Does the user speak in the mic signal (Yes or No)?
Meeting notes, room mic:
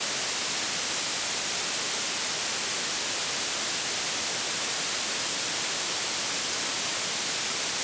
No